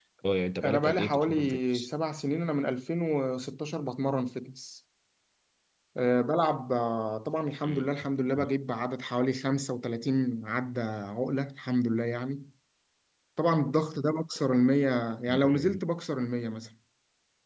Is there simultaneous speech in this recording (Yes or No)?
Yes